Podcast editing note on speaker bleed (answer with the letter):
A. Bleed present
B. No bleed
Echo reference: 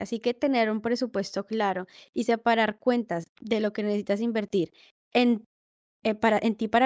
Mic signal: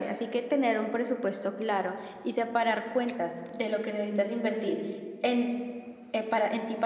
A